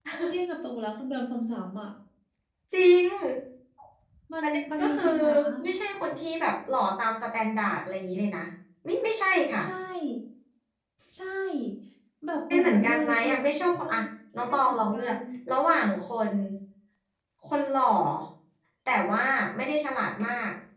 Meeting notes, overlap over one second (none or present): present